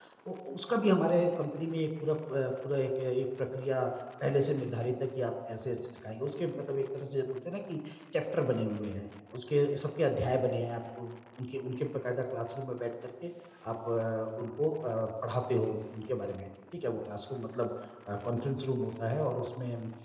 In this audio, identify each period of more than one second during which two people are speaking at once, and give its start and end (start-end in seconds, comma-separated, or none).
none